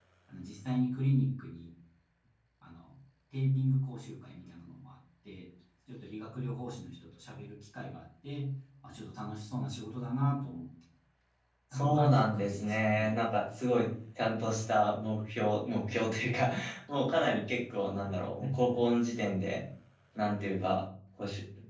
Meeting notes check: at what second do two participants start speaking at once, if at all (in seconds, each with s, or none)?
11.7 s